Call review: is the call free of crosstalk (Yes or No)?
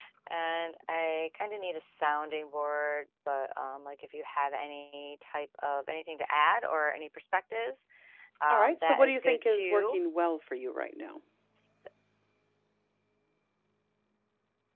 No